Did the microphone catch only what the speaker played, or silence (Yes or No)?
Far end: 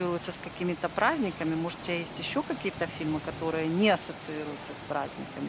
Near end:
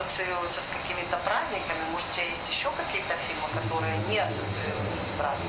No